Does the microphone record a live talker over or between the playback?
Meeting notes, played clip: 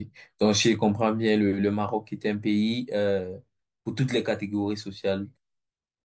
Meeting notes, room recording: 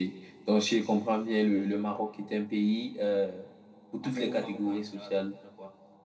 Yes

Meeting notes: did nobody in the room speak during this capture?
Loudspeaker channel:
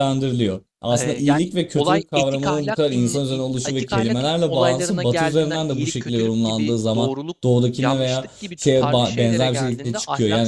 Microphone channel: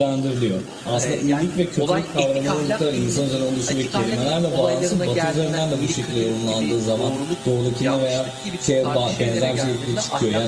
Yes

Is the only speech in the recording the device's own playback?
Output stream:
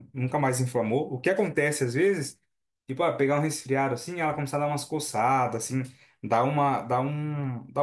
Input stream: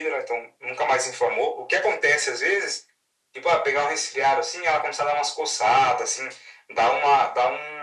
Yes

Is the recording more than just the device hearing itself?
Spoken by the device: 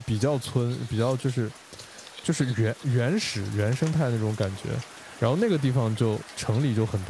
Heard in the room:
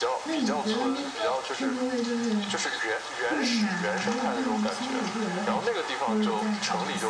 Yes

